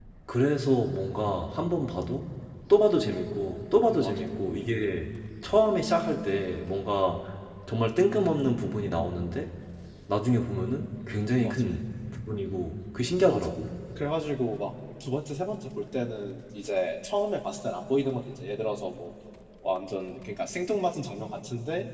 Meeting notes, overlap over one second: none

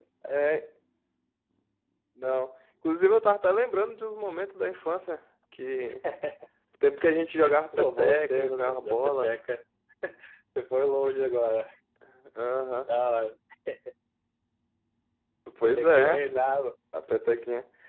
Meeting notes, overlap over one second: present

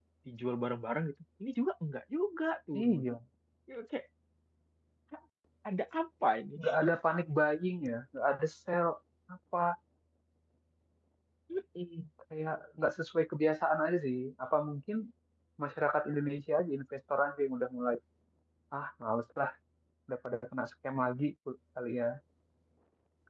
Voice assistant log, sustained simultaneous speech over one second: none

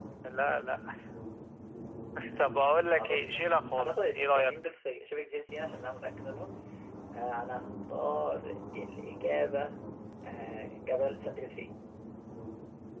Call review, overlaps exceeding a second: present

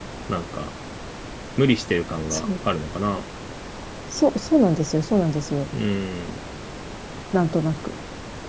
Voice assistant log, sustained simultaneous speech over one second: none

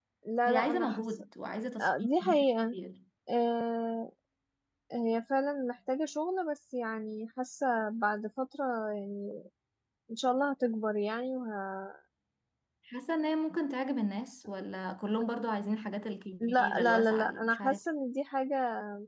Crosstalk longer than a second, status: present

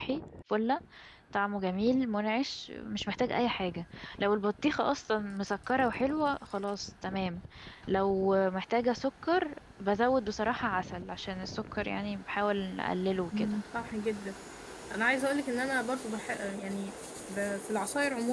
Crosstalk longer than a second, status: none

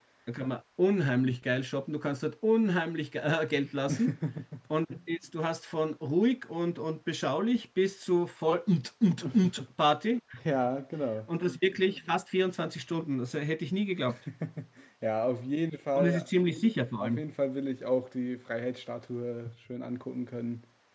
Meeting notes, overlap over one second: none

